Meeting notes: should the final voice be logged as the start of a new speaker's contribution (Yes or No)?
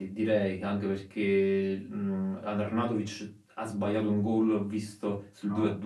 No